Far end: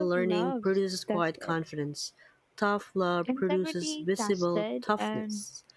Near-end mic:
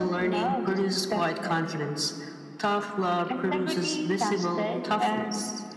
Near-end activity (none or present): none